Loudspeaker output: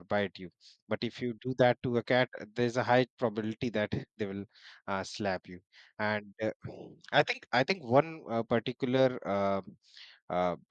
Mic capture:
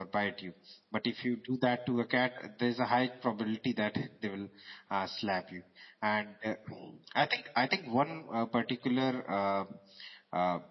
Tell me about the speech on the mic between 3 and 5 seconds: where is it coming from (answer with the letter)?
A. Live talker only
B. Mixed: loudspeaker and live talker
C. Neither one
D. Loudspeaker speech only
D